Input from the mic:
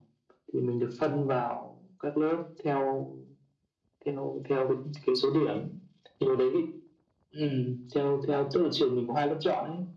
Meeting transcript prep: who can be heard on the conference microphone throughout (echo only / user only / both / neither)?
echo only